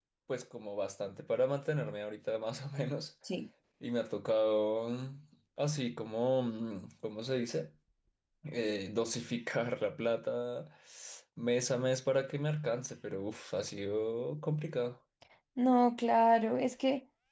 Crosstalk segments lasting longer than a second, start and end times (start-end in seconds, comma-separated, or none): none